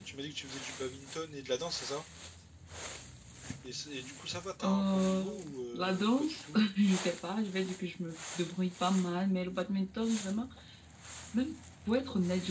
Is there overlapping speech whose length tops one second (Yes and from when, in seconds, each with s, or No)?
Yes, from 4.6 s